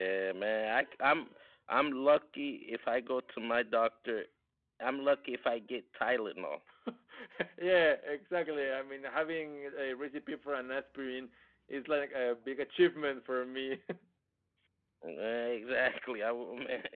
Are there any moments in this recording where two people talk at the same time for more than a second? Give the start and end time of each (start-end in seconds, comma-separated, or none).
none